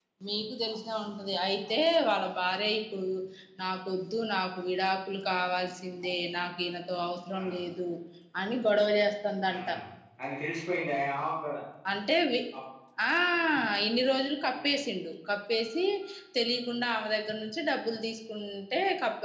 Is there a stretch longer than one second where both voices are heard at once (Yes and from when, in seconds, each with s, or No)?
No